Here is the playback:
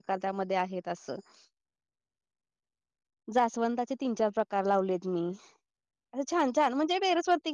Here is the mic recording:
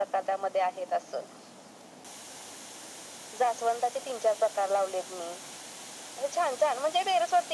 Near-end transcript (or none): none